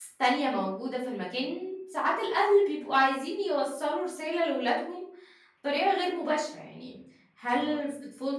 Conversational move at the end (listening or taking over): listening